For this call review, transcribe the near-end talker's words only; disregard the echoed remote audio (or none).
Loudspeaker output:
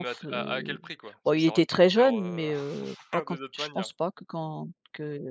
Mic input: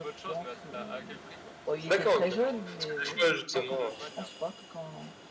D'accord, OK, OK. Parce que des fois justement, heu